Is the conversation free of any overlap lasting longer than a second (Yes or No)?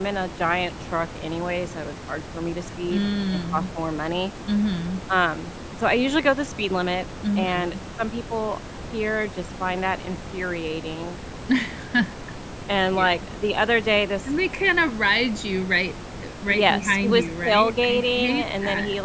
No